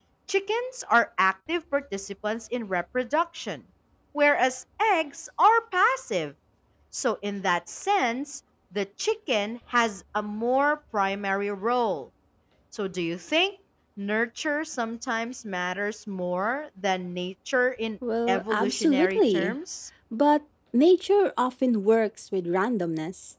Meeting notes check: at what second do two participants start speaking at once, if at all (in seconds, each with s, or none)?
18.3 s